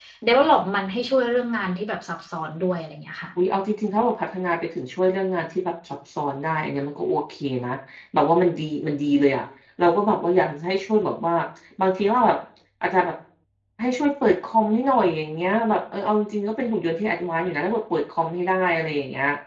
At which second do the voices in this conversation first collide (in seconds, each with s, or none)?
none